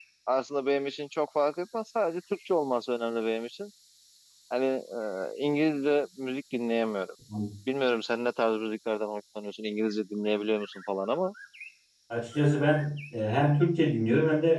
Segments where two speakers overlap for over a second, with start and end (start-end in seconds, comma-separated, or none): none